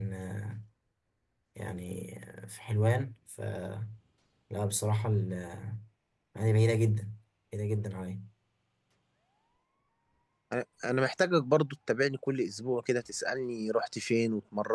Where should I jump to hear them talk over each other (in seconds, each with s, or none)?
none